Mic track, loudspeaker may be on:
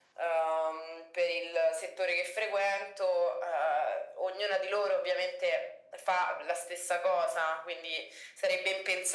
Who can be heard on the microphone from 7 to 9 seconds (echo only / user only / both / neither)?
echo only